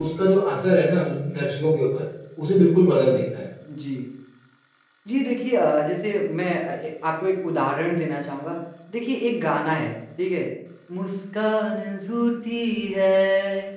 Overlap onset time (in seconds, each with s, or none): none